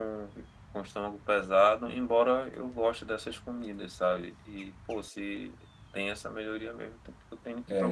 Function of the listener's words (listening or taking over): taking over